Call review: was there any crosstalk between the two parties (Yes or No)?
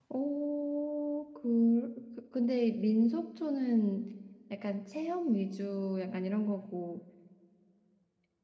No